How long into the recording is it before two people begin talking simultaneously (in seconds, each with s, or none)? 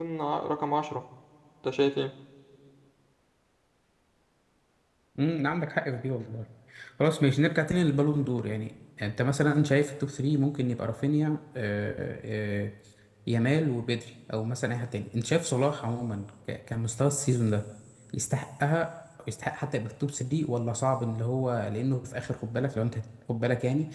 none